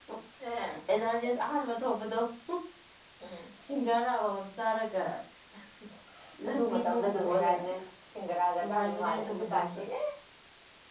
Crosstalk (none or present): present